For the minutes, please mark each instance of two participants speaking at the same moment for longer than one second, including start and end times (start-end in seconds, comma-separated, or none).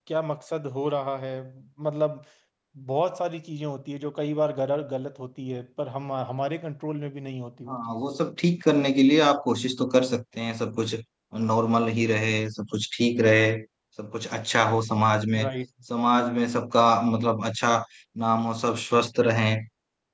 none